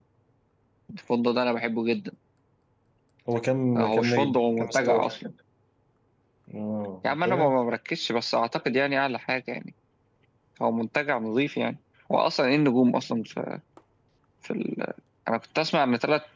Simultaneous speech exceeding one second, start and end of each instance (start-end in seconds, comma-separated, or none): 3.8-5.1